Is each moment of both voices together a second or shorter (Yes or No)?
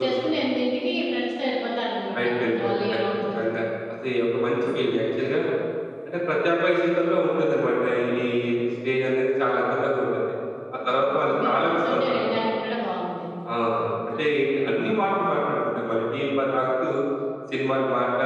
No